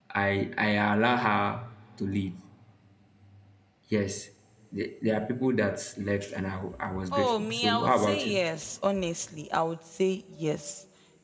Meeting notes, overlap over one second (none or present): present